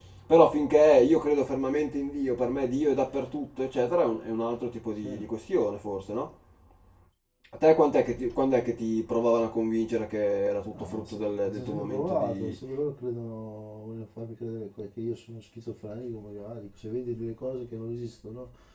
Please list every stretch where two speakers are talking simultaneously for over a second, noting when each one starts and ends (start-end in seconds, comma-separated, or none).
10.7-12.6